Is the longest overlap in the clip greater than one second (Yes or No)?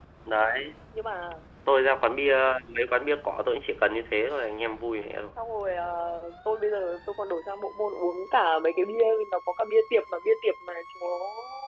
No